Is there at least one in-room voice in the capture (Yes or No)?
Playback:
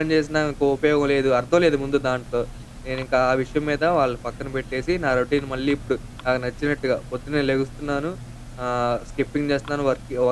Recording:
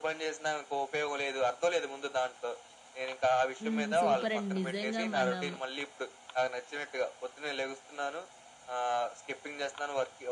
Yes